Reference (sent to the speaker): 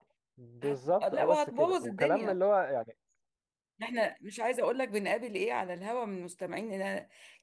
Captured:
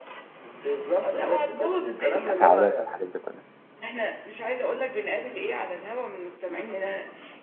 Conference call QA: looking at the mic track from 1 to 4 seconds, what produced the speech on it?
both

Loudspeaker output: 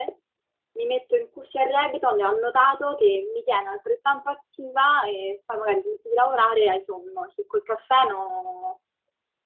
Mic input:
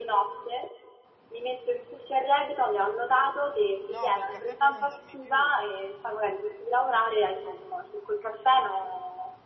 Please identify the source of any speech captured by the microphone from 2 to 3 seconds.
echo only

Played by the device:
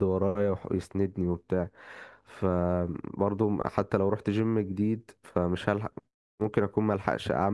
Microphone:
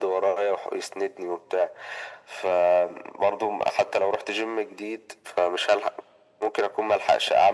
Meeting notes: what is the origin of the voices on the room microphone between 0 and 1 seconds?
echo only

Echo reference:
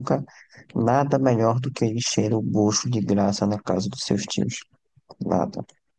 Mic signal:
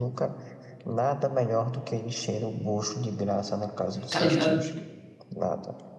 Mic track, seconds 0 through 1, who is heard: echo only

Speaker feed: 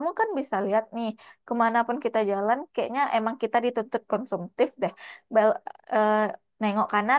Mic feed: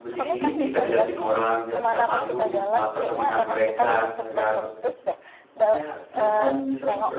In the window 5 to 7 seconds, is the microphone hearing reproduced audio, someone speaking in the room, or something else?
both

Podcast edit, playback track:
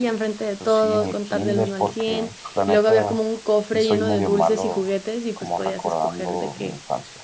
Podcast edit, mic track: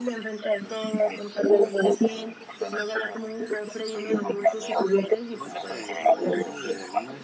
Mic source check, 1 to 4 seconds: echo only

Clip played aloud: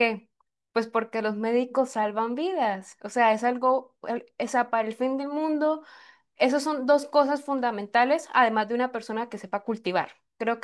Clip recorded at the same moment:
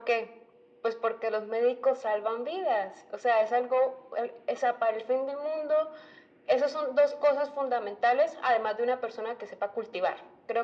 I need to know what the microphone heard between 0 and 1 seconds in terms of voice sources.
echo only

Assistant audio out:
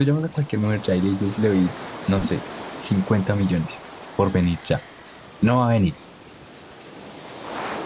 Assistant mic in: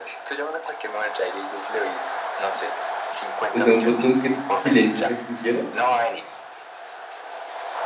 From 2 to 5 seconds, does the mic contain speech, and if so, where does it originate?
both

